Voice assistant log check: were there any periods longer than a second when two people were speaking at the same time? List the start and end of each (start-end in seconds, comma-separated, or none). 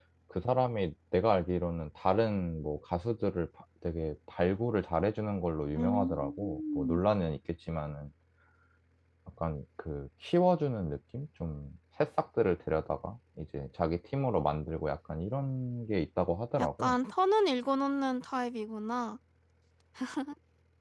5.8-7.0